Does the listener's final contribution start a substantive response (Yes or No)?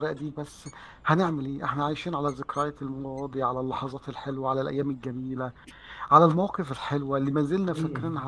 No